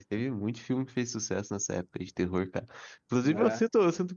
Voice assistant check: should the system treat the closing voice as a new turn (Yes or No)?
No